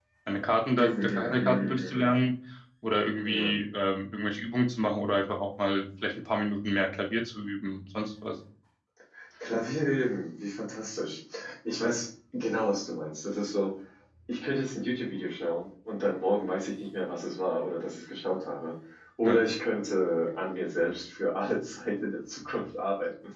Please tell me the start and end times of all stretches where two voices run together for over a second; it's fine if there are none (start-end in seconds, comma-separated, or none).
0.8-2.1